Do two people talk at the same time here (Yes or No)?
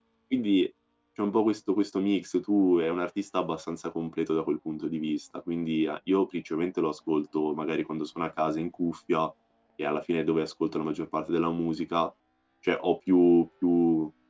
No